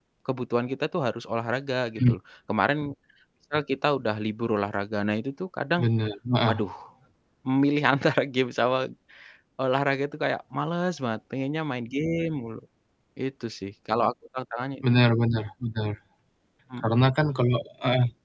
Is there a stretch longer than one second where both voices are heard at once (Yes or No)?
No